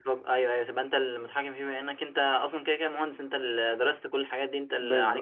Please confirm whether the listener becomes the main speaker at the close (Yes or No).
Yes